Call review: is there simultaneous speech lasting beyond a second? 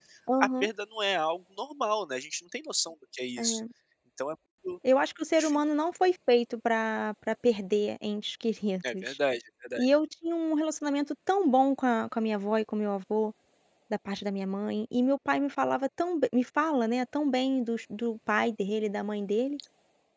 No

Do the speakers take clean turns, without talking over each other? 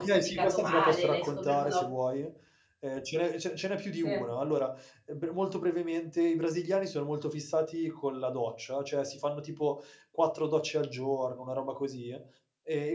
No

